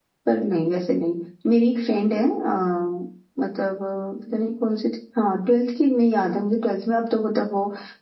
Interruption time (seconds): none

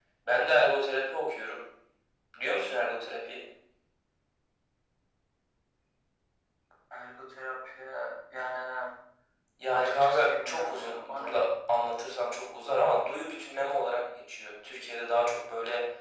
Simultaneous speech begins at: 9.7 s

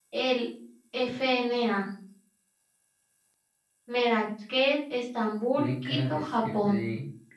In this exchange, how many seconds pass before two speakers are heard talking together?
5.6 s

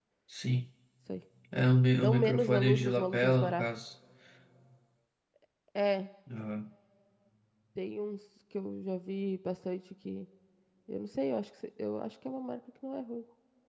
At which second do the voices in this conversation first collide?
2.0 s

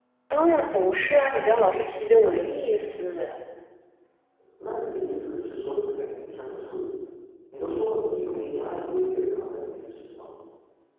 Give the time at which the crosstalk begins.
none

